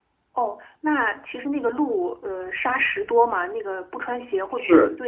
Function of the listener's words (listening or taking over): taking over